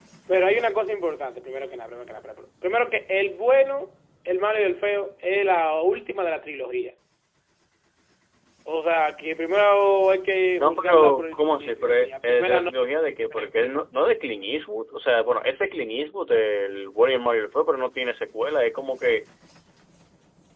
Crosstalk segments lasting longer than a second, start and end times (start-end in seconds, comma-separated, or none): 10.6-12.7